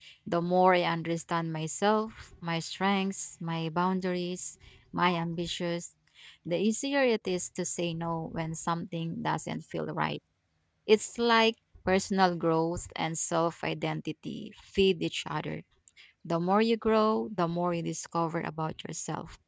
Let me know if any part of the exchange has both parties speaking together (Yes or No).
No